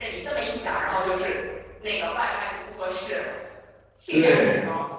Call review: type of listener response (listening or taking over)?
taking over